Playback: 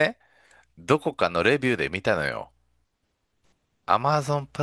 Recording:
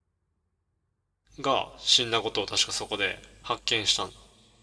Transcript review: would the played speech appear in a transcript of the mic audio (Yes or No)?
No